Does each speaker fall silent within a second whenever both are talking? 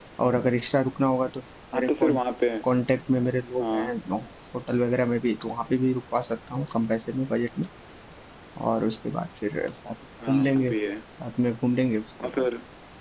Yes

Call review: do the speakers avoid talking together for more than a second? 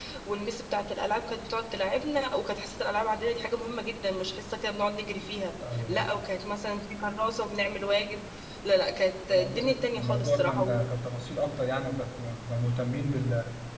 No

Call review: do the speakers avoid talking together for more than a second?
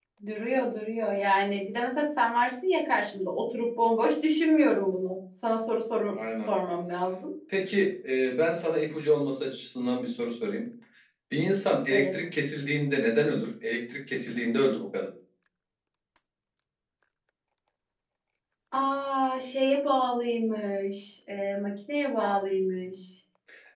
Yes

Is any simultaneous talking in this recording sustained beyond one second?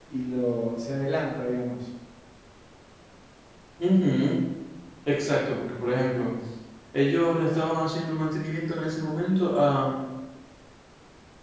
No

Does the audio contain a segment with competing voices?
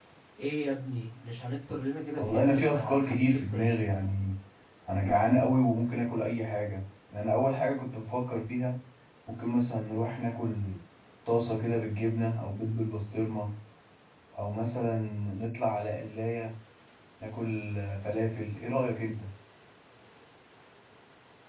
Yes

